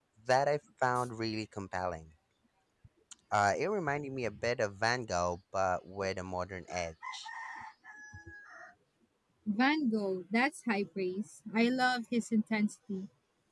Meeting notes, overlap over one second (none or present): none